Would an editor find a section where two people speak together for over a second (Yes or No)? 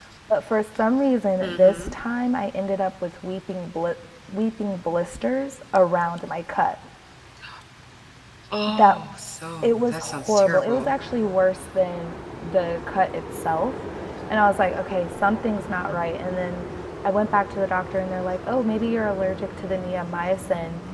Yes